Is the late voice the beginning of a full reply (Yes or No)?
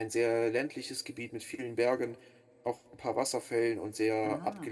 Yes